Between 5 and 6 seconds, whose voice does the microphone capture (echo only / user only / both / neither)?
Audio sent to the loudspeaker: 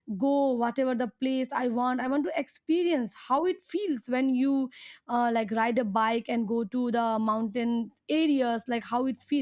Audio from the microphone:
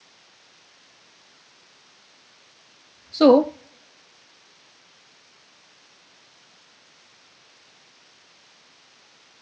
neither